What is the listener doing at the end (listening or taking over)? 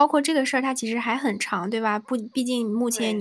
listening